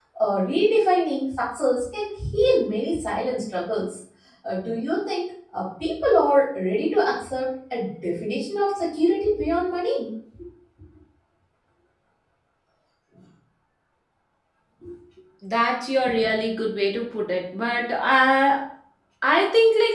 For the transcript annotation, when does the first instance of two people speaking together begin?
none

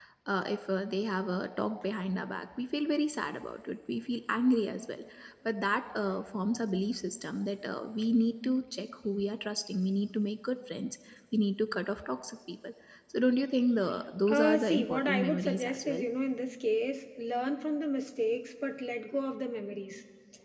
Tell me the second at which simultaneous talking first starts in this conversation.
14.3 s

